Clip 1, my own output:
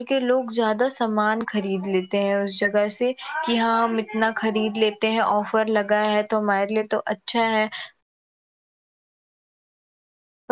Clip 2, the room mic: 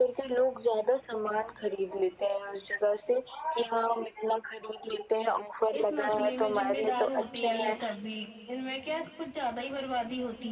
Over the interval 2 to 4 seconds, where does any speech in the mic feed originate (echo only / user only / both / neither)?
echo only